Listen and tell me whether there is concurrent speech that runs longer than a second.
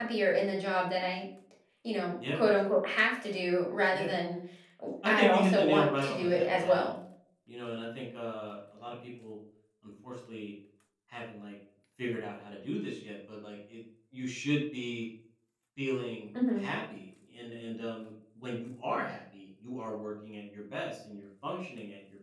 Yes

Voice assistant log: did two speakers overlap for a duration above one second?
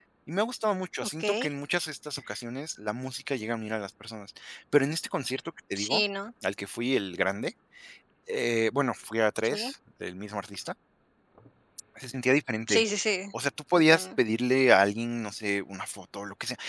No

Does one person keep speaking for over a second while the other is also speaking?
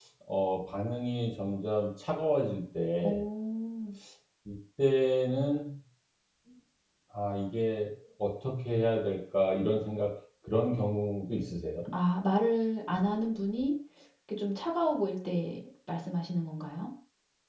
No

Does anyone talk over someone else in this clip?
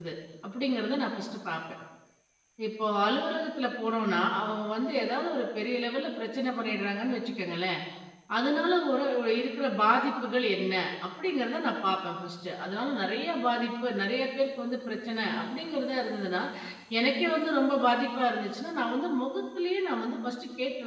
No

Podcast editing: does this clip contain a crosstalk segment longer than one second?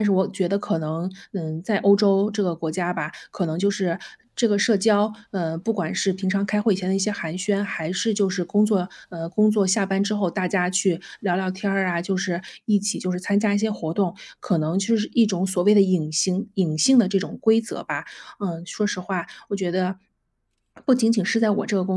No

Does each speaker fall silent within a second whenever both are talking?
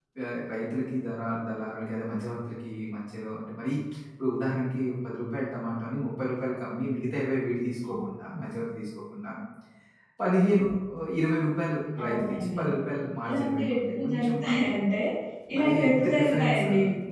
No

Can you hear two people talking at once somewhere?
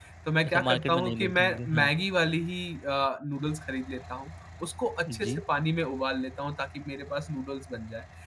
Yes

